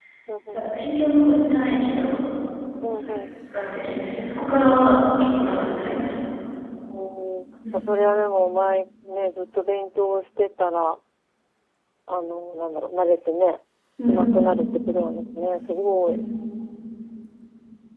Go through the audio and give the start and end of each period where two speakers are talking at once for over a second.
none

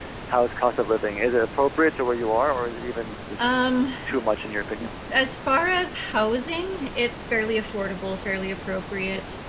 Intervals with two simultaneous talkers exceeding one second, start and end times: none

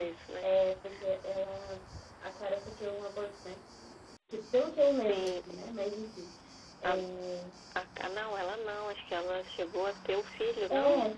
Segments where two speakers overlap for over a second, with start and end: none

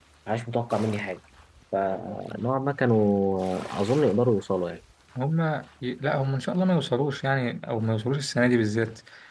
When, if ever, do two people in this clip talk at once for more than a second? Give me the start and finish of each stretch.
none

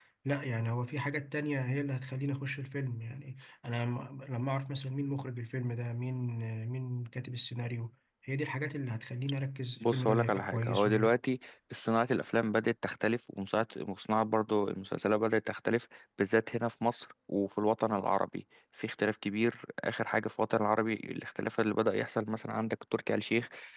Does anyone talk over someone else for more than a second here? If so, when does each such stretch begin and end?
9.8-11.2

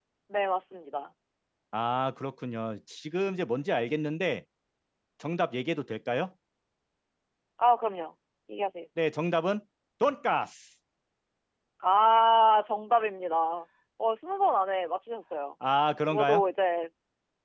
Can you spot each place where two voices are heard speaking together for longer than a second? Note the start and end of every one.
none

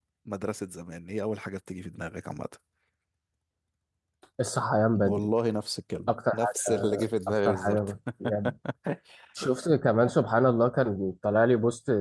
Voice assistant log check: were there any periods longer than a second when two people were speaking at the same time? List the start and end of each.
6.1-7.8

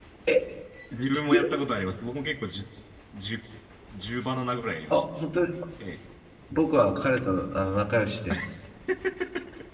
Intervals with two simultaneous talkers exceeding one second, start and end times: none

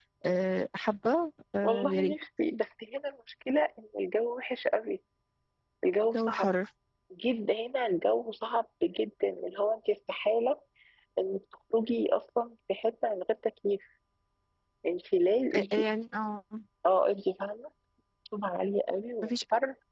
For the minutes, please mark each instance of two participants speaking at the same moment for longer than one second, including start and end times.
none

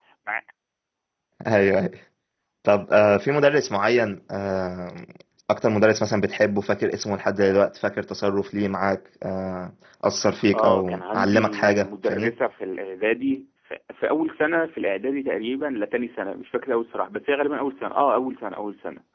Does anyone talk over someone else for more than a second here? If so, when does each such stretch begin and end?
10.5-12.3

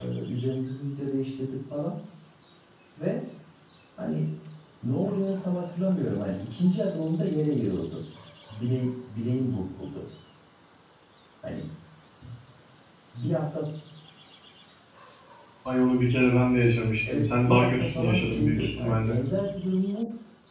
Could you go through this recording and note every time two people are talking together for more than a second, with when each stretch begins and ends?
17.1-19.2

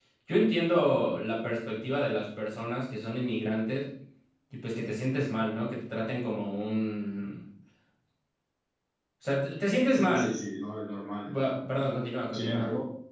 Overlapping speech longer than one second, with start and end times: none

